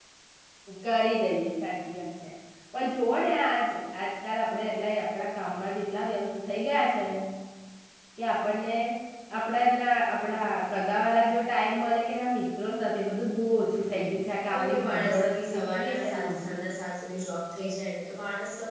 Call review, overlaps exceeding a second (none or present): present